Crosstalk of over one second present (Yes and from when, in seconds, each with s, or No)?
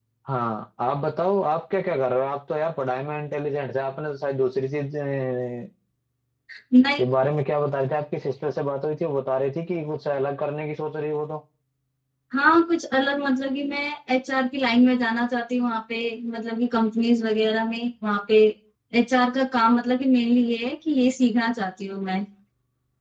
No